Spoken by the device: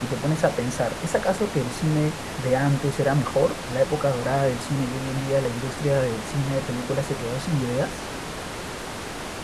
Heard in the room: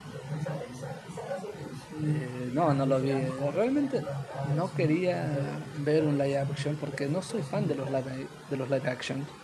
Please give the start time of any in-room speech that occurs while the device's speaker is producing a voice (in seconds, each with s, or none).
2.0 s